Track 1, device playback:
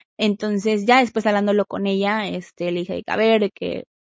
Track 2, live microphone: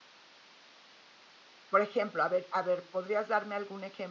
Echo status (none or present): none